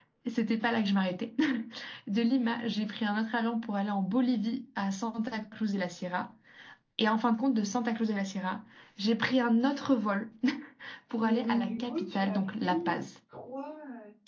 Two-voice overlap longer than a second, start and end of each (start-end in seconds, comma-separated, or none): 11.2-13.0